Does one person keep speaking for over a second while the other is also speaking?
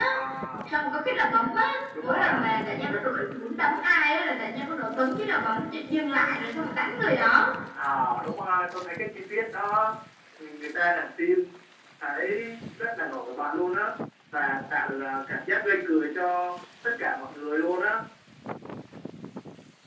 No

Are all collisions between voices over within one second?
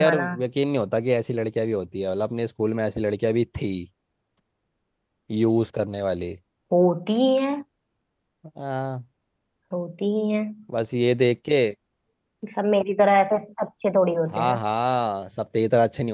Yes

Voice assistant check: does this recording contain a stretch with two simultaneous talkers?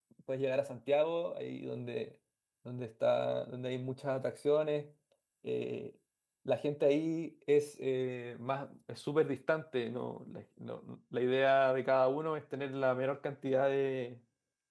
No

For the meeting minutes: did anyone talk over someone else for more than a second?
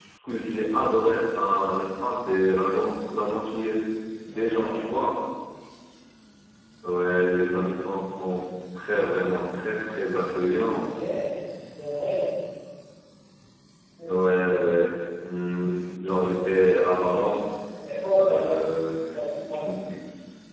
No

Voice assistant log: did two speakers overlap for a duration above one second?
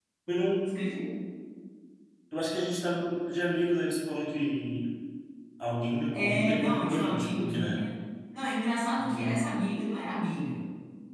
Yes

